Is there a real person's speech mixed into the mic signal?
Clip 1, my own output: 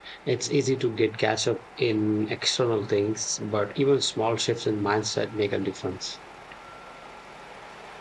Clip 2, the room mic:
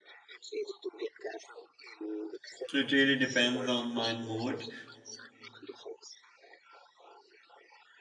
Yes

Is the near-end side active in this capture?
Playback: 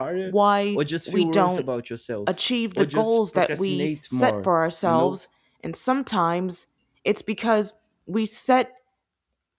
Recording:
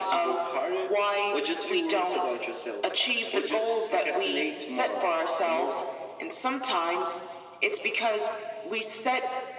No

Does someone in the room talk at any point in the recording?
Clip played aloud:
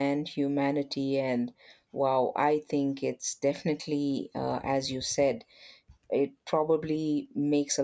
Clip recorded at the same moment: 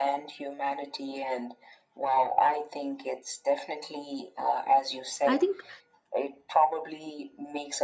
Yes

